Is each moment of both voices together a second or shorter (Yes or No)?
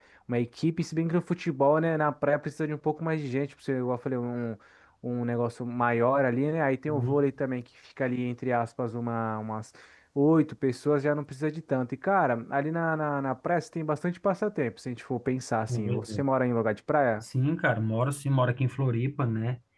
Yes